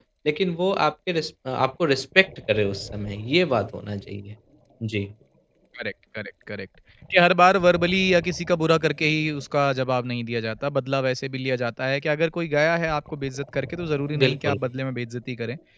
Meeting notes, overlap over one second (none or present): none